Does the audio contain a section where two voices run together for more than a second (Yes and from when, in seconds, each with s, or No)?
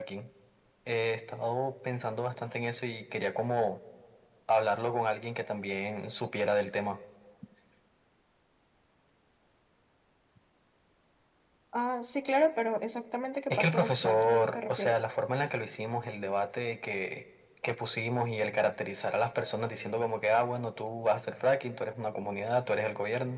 Yes, from 13.5 s